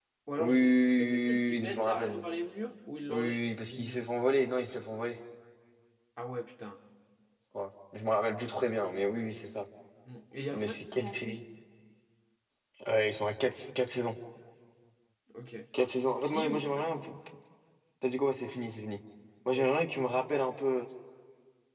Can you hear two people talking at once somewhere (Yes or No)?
Yes